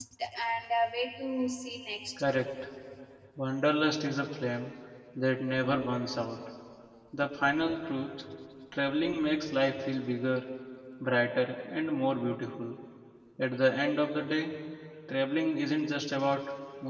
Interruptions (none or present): none